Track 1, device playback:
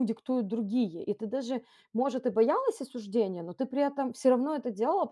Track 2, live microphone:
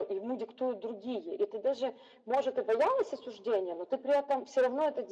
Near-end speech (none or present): none